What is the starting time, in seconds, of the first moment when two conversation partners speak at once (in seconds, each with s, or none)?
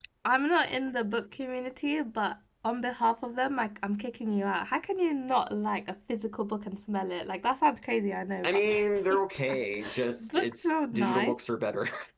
8.4 s